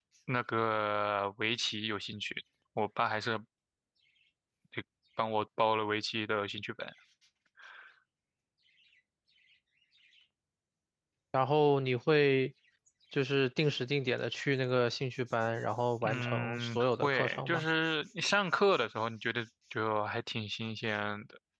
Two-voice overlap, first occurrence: 16 s

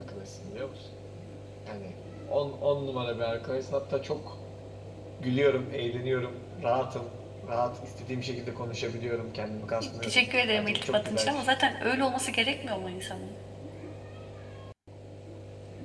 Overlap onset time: 10 s

